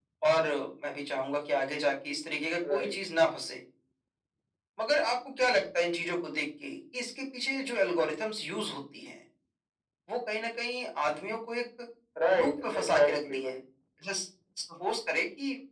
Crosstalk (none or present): present